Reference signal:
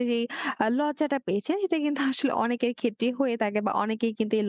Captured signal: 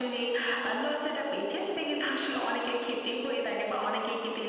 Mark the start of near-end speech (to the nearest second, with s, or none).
none